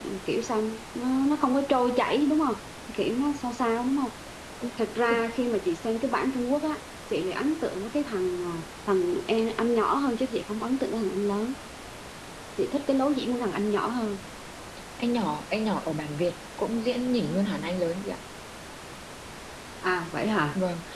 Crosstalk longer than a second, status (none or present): none